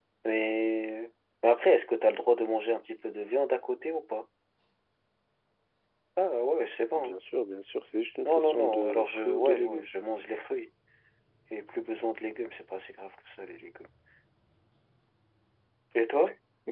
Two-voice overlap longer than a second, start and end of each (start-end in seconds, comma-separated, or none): 8.2-9.9